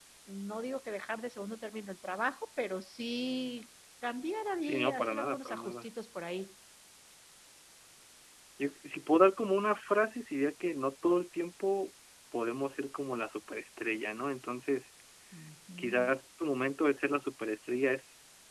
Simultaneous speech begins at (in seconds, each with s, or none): 4.6 s